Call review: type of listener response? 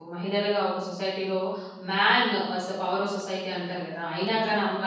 listening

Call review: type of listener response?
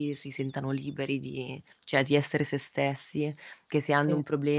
listening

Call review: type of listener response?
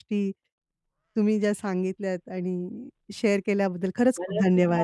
taking over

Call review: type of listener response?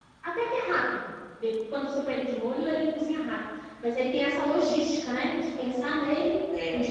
taking over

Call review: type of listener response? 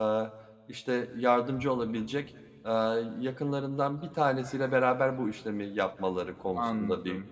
taking over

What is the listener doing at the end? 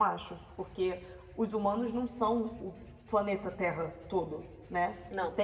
listening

